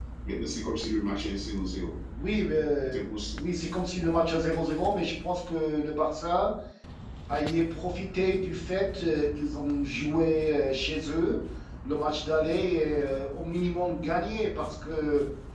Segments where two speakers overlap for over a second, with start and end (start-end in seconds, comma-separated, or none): none